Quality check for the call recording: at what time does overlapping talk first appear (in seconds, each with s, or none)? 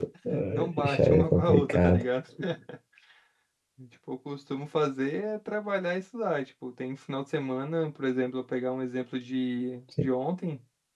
0.5 s